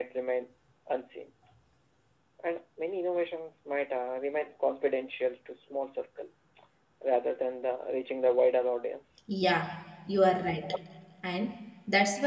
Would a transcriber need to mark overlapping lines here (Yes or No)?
No